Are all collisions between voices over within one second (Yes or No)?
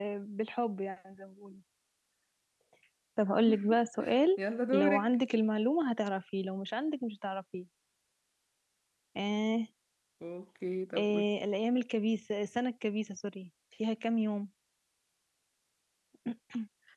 Yes